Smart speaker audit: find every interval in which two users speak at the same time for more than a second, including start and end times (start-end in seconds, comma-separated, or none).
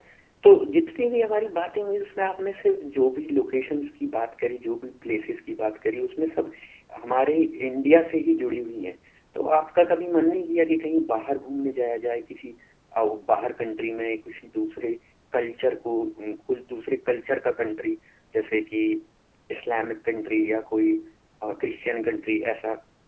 none